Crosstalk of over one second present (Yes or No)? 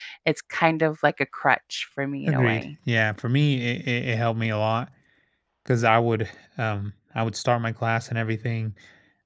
No